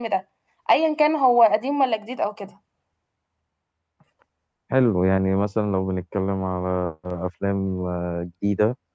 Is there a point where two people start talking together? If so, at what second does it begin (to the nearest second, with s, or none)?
none